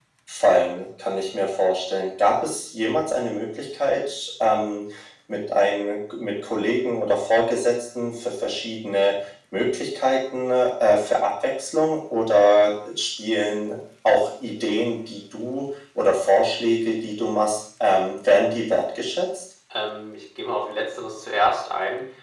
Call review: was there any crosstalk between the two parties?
No

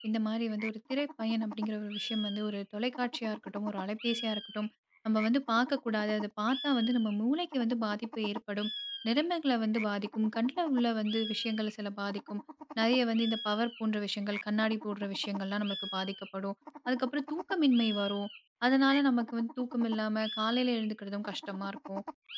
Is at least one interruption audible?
No

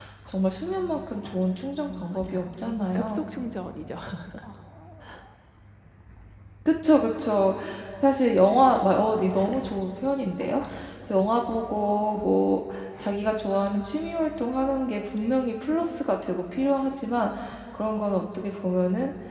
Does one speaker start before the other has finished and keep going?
Yes, from 1.9 s

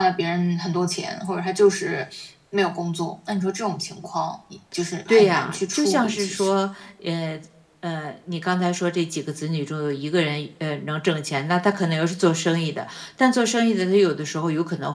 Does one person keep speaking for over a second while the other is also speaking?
Yes, from 5.1 s

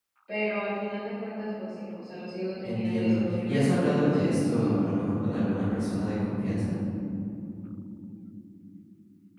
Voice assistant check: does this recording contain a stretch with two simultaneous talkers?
Yes, from 2.6 s

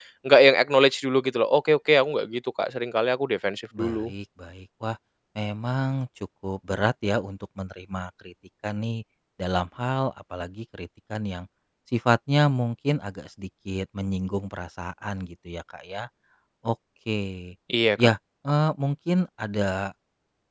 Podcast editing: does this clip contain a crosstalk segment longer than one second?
No

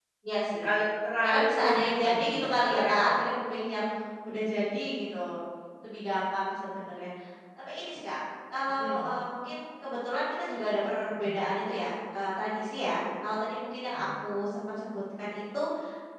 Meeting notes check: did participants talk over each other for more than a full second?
Yes, from 1.2 s

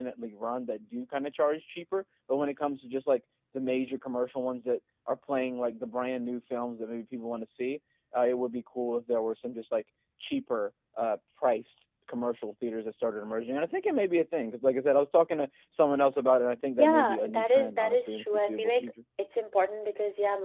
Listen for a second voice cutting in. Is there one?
Yes, from 16.8 s

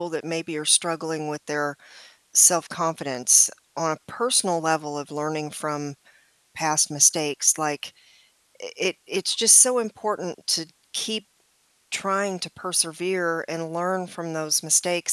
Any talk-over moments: No

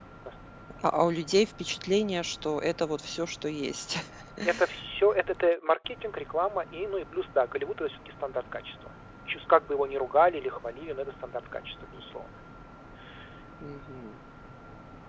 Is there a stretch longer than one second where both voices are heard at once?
No

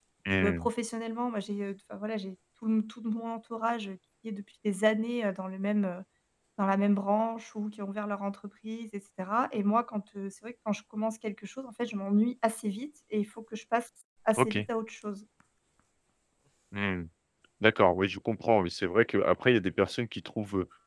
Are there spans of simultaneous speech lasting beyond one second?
No

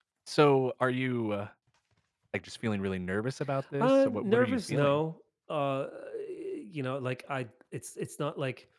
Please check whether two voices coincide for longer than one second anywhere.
Yes, from 3.8 s

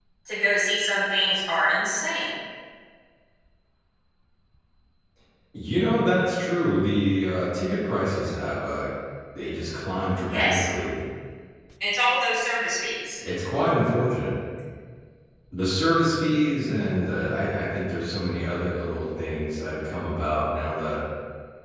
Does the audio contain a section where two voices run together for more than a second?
No

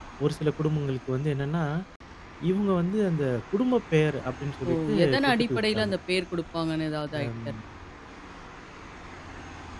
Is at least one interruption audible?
Yes, from 4.7 s

